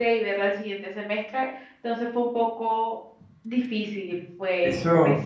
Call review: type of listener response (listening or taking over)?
taking over